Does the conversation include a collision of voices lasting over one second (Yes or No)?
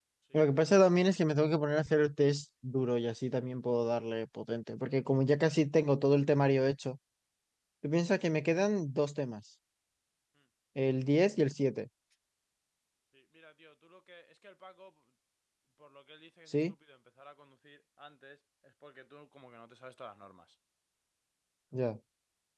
No